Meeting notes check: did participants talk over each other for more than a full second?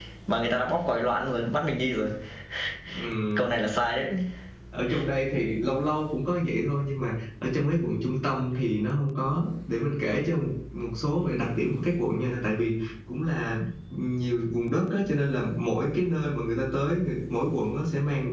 No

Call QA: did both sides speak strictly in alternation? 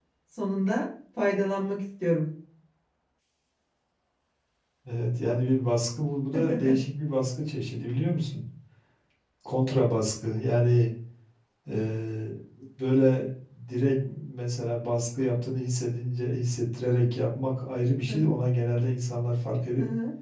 Yes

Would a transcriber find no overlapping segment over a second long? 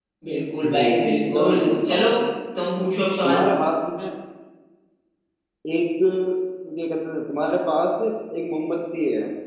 No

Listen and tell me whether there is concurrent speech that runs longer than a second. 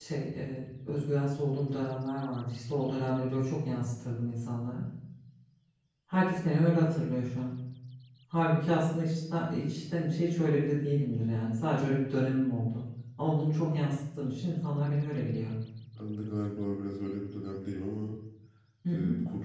No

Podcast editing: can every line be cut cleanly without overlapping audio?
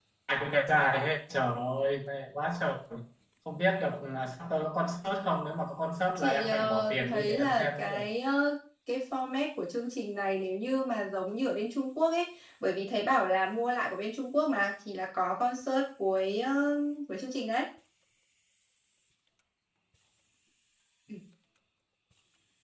No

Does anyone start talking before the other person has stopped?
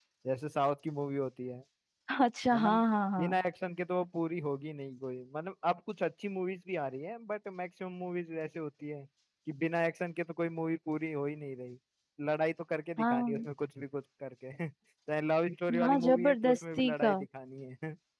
Yes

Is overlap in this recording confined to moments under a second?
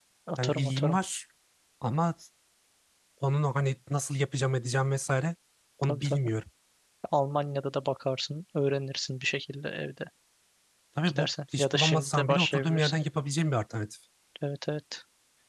No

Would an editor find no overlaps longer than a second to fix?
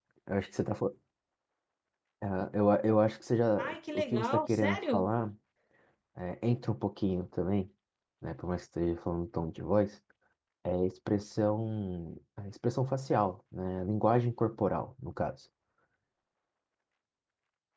No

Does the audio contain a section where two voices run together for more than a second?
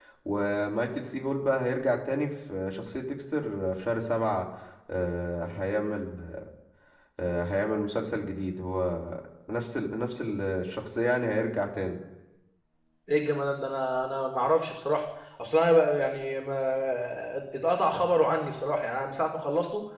No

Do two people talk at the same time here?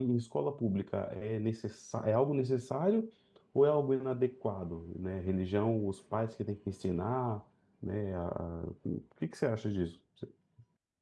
No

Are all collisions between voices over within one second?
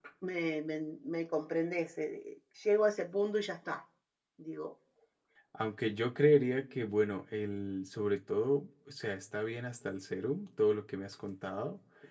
Yes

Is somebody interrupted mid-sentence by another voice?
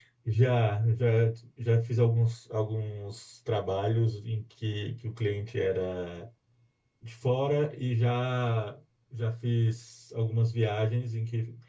No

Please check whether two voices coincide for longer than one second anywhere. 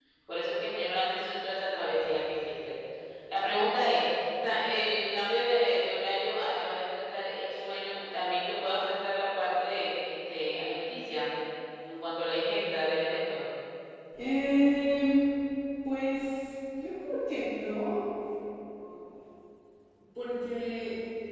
No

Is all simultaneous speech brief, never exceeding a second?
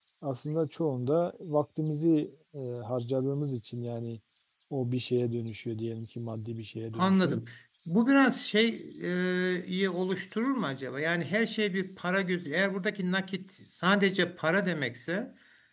Yes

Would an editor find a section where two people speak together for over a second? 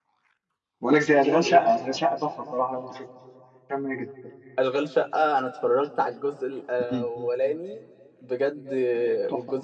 No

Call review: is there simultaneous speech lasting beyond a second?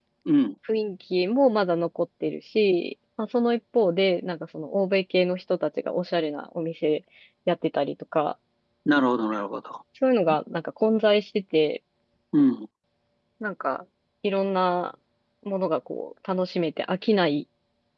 No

